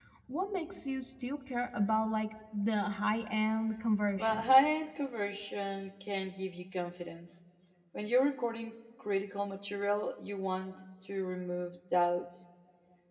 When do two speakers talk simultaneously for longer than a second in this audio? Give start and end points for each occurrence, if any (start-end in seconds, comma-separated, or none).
none